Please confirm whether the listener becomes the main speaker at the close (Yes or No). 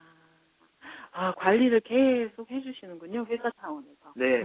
Yes